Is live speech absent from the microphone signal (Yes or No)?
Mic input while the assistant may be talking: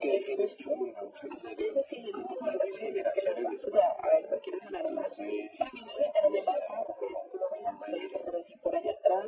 Yes